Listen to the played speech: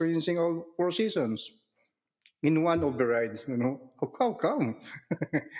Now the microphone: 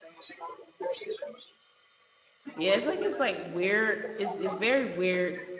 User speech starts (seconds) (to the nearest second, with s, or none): 3 s